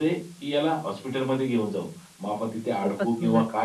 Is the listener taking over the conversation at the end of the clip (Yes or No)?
No